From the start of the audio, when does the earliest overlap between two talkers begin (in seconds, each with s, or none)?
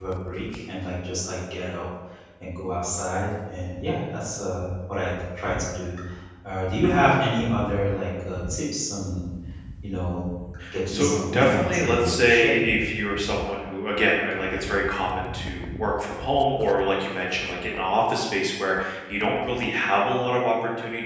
10.9 s